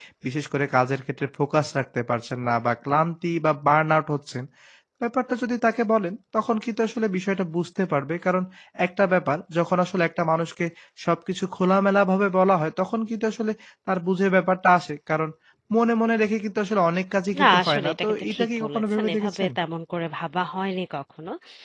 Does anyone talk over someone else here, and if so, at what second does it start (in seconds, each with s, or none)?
17.3 s